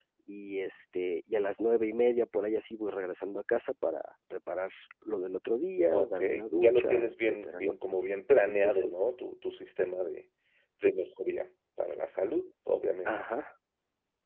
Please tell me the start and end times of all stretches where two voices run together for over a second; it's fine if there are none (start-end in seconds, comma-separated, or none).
5.9-7.7